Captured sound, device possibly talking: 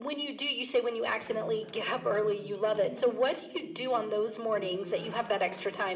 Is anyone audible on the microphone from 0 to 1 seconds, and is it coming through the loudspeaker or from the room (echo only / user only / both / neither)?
echo only